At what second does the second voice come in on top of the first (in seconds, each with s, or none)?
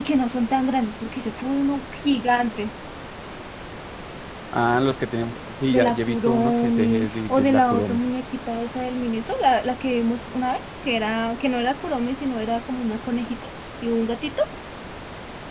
5.7 s